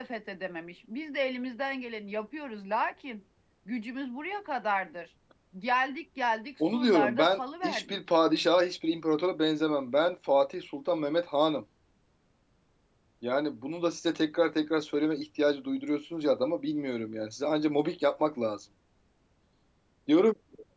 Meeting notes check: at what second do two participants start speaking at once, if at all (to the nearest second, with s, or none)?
7 s